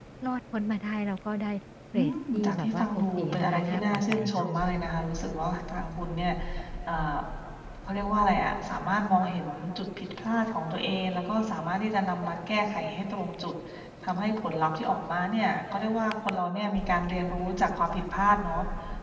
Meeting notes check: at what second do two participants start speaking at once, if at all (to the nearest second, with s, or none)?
2 s